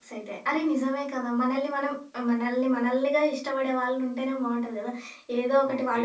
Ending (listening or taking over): listening